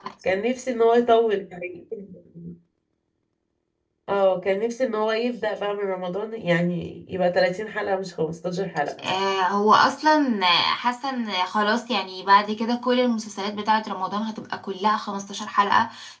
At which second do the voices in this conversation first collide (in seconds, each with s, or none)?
none